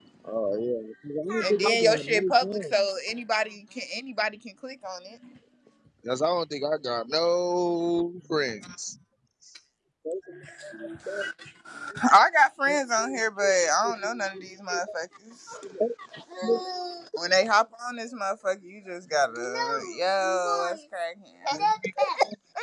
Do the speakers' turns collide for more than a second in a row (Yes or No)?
Yes